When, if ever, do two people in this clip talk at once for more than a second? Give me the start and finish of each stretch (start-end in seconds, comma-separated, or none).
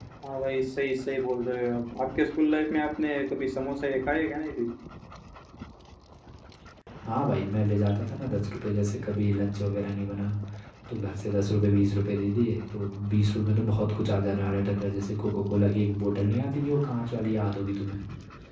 none